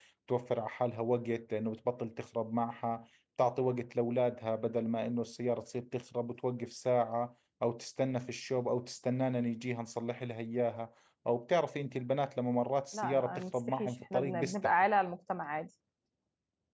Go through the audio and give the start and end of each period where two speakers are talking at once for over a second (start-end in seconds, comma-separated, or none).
12.9-14.7